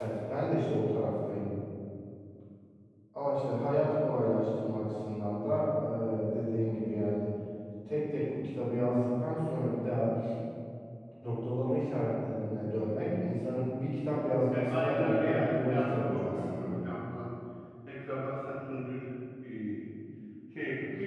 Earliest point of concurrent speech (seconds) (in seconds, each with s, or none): 14.5 s